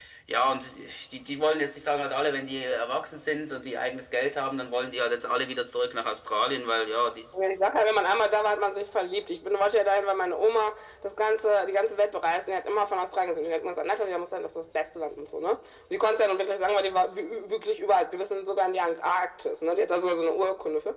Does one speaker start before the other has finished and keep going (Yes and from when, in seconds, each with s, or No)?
No